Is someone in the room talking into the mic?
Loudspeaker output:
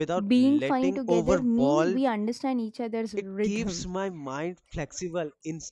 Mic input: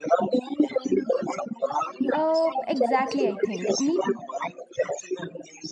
Yes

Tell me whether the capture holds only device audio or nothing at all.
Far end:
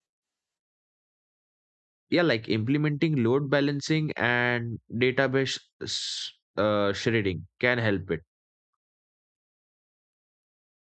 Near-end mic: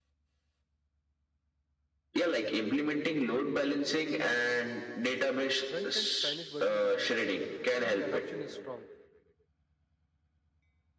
No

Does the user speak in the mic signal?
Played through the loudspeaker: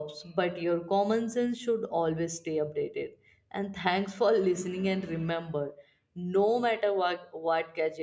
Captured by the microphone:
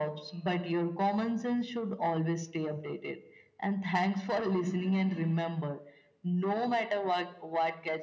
No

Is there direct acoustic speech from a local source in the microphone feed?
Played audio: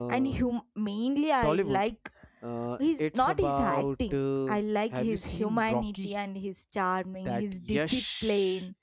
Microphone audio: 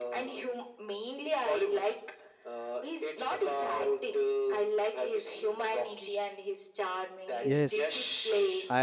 Yes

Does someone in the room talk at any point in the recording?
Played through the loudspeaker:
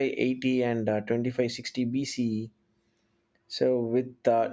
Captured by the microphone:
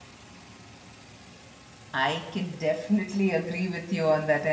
Yes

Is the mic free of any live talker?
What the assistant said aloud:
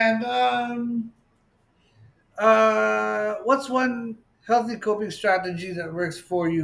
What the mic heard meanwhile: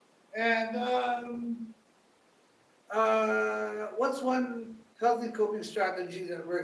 Yes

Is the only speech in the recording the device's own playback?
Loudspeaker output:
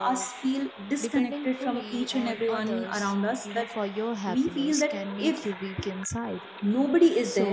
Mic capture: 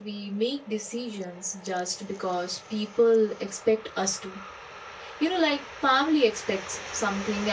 No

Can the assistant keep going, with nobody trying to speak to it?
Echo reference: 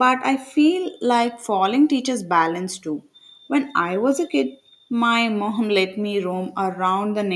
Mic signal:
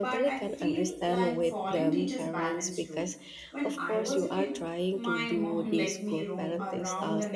No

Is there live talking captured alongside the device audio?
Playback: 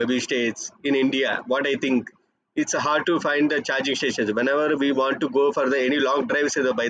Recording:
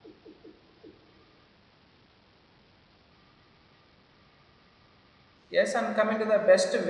Yes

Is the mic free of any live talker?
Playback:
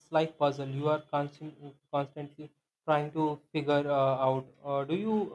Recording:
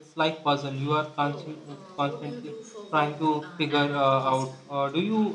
No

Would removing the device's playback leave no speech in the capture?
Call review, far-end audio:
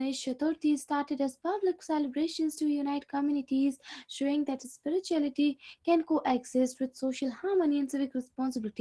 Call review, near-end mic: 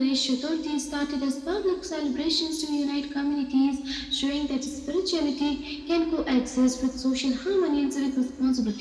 Yes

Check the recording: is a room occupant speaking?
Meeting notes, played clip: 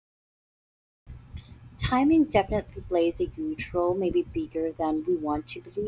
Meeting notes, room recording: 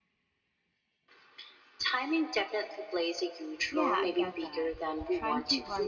Yes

